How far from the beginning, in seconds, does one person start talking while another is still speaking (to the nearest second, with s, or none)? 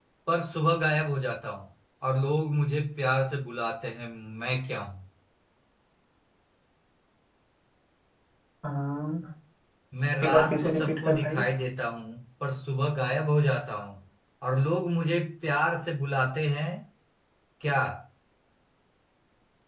10 s